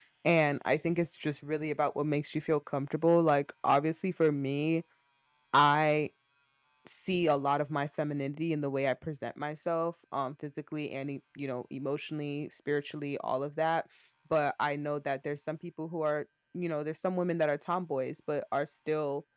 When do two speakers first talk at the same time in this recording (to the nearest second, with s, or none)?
none